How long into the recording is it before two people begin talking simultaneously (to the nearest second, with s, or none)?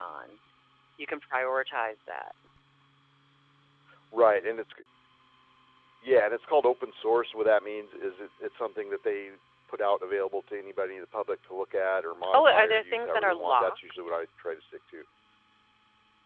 12 s